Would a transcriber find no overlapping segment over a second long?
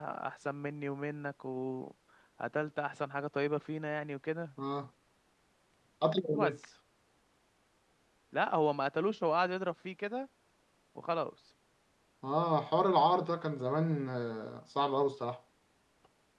Yes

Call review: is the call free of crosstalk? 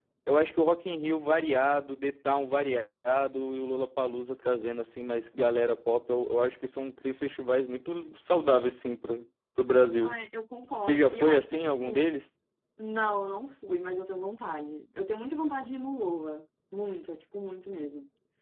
No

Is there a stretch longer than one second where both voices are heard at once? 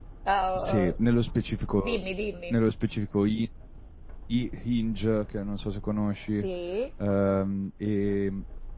No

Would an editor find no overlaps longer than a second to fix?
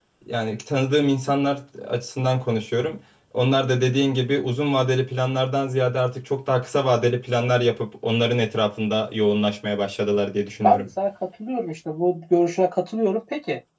Yes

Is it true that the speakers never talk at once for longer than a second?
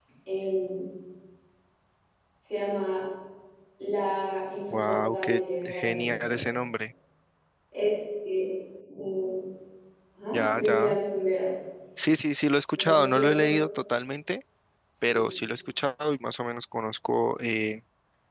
No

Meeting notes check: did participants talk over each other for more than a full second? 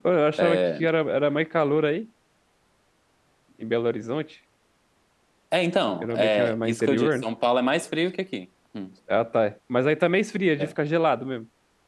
Yes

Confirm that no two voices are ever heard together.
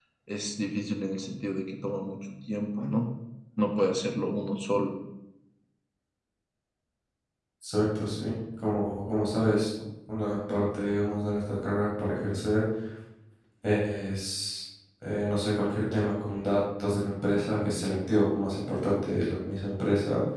Yes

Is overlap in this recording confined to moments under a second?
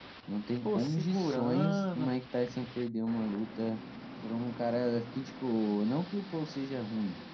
No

